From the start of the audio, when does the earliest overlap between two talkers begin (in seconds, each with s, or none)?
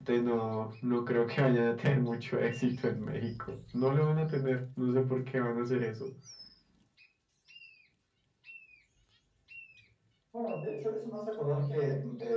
none